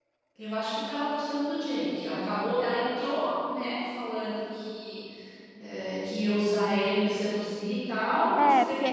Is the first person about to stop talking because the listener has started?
Yes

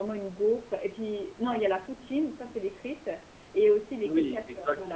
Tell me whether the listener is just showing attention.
No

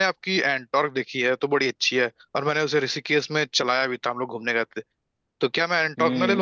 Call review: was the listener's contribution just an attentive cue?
No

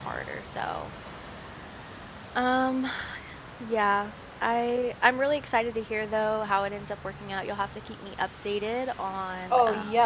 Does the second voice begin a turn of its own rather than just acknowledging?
Yes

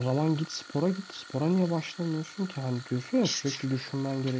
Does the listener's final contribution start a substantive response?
No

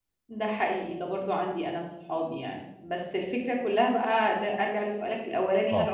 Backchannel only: Yes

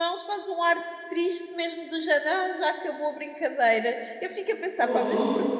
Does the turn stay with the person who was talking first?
Yes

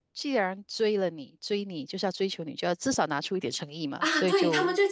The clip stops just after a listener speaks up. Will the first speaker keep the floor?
No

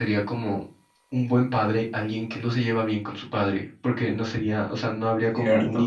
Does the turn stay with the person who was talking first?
Yes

